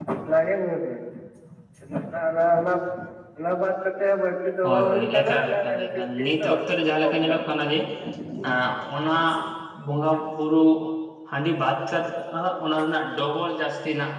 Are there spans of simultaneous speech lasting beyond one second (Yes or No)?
Yes